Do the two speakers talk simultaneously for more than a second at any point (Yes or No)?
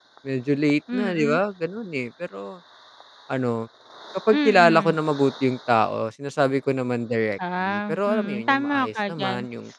Yes